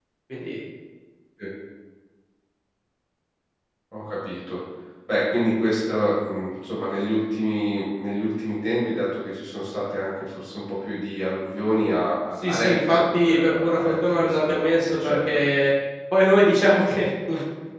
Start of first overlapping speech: 12 s

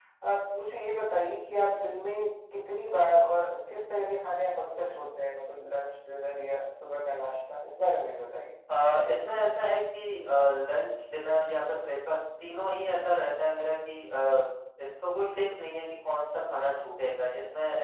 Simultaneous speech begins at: none

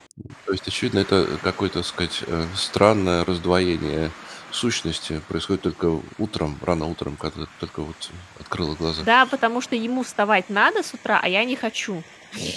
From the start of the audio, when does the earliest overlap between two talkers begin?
none

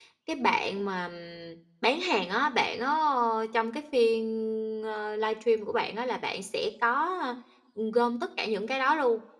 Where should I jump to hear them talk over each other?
none

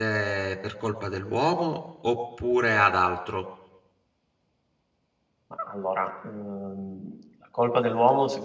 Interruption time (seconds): none

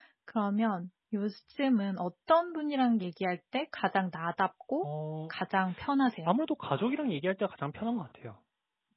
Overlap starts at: none

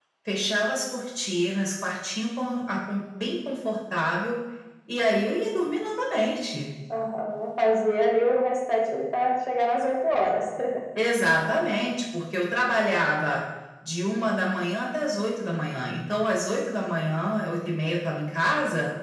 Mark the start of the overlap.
none

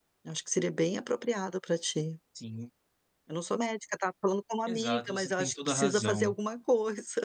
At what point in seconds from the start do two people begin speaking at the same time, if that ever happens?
5 s

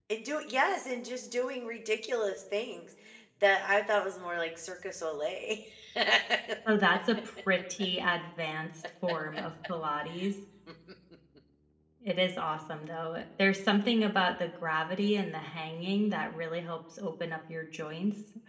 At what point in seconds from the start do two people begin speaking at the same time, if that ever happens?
none

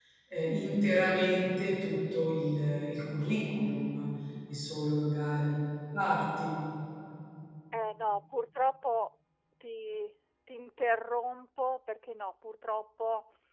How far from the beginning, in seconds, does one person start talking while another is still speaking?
none

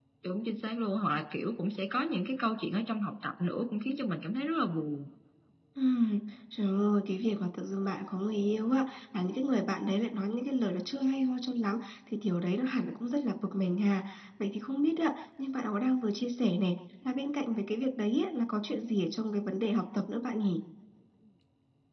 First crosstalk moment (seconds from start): none

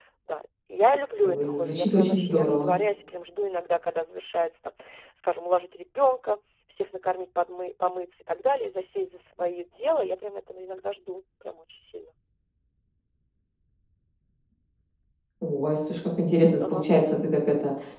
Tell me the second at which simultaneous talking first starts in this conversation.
1 s

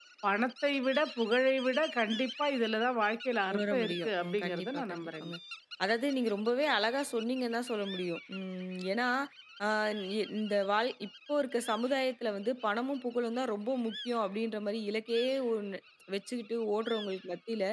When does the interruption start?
3 s

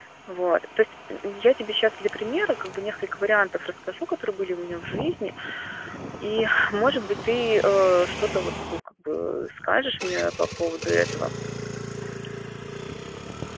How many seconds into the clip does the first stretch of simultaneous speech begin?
none

